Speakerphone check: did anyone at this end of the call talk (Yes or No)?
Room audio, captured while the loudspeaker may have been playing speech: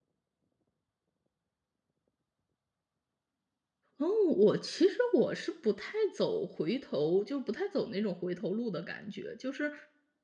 Yes